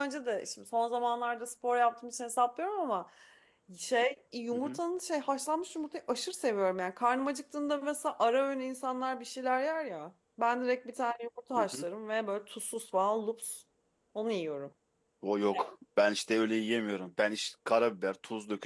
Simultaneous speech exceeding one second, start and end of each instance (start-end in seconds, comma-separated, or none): none